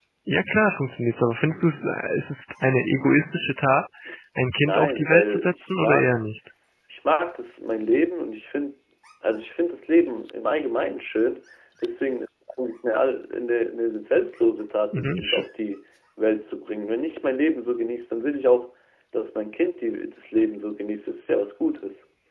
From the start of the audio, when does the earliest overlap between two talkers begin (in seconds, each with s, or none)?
4.6 s